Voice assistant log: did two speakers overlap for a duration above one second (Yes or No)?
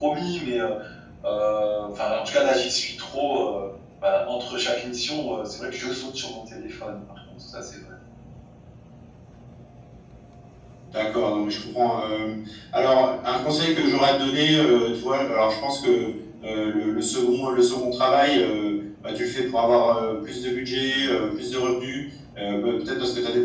No